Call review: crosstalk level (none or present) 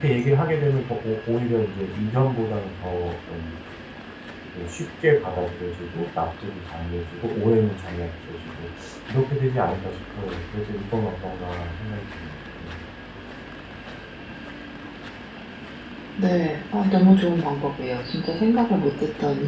none